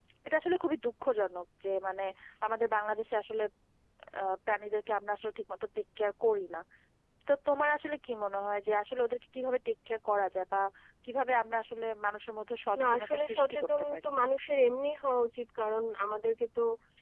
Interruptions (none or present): present